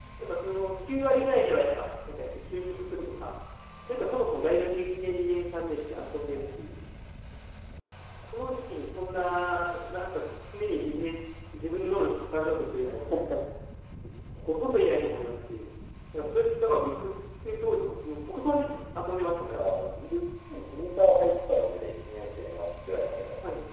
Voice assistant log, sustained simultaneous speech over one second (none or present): none